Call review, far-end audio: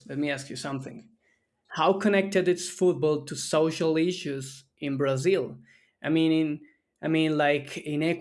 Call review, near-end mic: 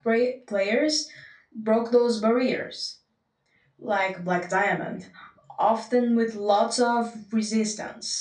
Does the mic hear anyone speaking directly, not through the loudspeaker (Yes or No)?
Yes